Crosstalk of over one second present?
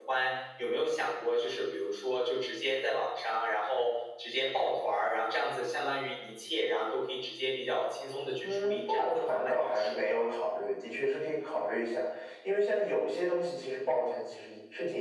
Yes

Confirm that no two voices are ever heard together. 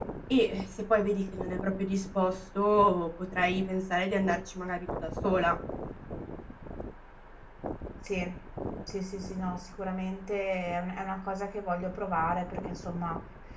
Yes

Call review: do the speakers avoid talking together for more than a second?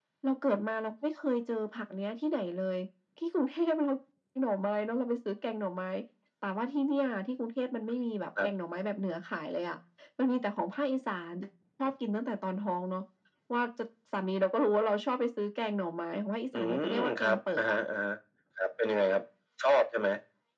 No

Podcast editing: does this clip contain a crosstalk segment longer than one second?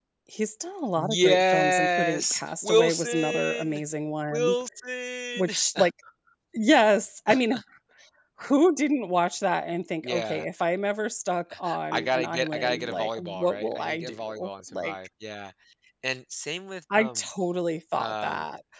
Yes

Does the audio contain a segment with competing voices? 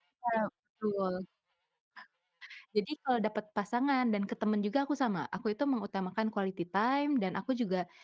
No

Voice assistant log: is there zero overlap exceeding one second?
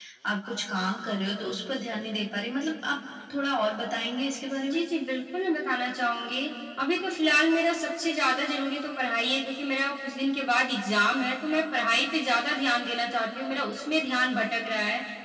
Yes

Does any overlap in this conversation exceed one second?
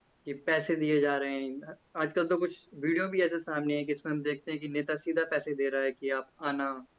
No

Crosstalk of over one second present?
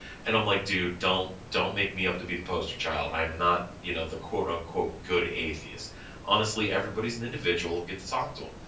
No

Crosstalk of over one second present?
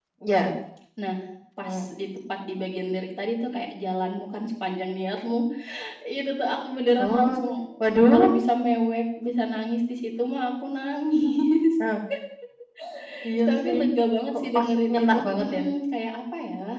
Yes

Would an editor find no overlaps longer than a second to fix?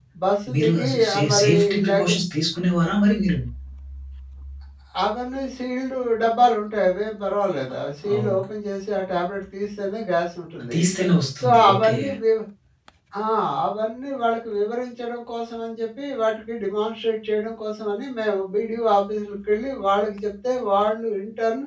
No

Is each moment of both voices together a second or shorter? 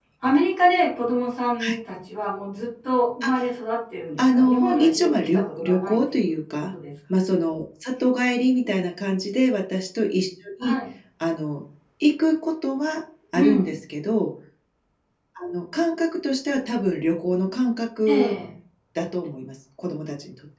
No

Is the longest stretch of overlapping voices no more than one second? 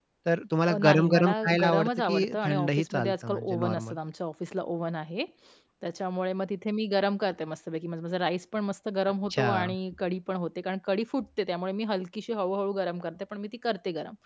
No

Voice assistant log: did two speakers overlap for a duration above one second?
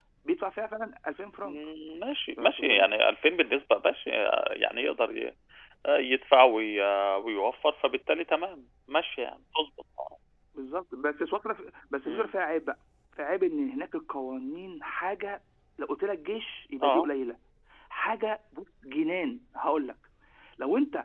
No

